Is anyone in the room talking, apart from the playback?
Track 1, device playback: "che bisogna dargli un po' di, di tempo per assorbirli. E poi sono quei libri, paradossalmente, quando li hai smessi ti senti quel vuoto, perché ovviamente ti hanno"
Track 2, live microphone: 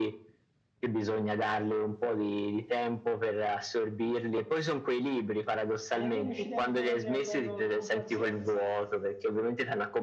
Yes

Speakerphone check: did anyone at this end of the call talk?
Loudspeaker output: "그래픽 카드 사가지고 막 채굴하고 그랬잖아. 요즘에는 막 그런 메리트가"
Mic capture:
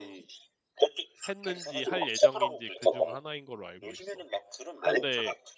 Yes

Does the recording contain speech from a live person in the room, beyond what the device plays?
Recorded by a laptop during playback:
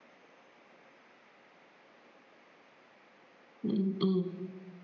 Yes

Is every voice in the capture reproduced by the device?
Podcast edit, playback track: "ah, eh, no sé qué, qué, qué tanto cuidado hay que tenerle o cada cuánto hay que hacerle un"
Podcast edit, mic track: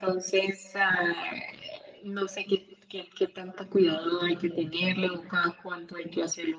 Yes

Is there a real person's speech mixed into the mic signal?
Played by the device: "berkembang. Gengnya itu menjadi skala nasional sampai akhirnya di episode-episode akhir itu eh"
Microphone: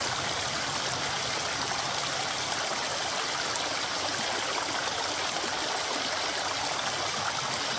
No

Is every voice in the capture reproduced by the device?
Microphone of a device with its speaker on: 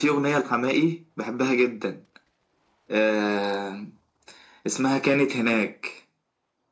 Yes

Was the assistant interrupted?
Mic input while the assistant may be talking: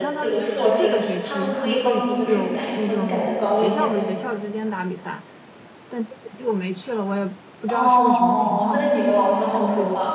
Yes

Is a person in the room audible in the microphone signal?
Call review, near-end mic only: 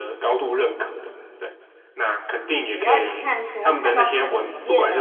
Yes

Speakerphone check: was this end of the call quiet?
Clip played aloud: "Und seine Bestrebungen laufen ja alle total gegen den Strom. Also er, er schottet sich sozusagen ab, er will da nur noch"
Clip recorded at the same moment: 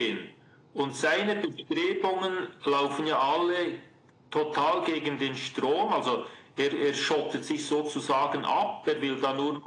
Yes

